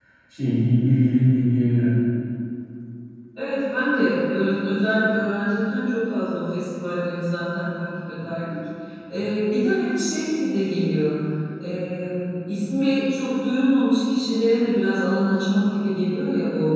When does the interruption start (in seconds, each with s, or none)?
none